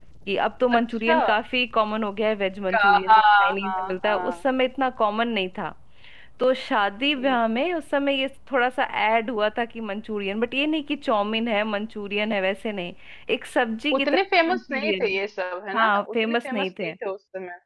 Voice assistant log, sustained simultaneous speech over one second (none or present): present